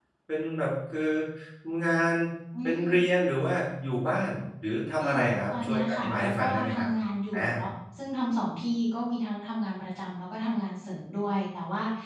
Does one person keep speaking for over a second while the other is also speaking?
Yes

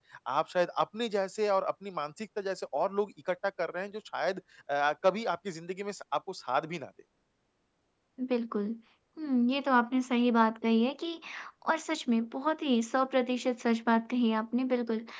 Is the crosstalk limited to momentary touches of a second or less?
Yes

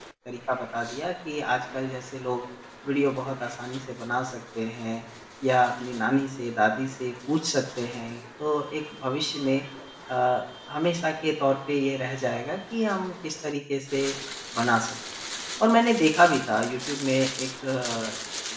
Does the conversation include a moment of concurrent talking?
No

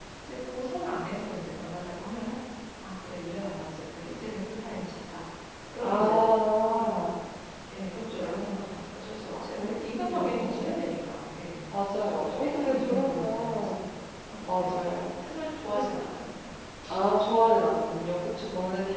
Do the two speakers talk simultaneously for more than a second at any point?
Yes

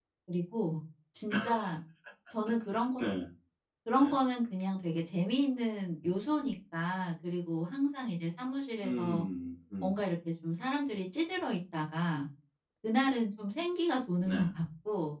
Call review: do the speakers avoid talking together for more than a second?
Yes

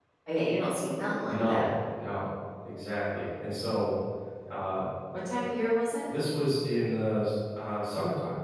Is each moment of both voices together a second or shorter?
Yes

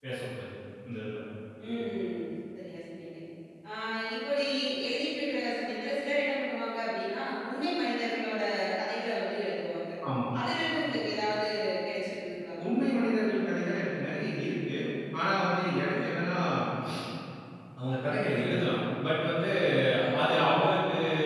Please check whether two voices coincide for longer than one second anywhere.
No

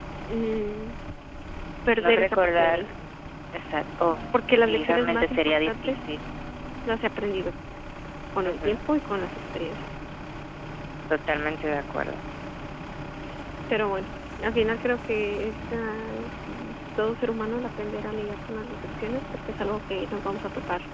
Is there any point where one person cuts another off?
Yes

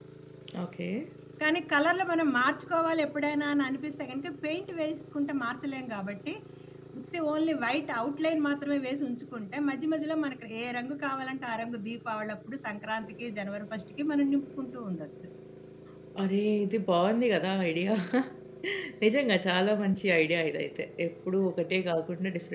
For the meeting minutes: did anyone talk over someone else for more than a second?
No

